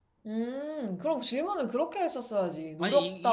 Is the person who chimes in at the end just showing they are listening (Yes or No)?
No